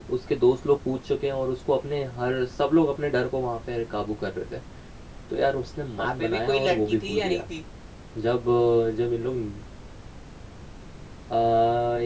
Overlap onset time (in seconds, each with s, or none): 6.0 s